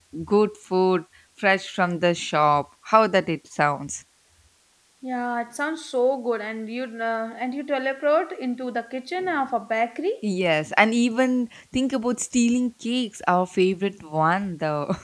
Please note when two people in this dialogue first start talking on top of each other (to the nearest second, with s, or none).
none